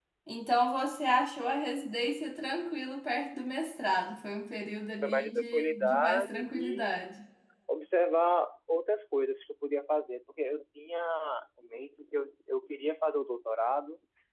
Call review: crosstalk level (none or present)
present